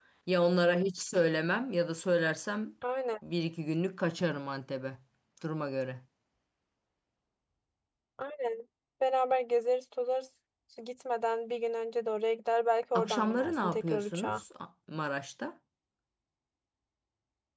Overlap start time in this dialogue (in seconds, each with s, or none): 12.9 s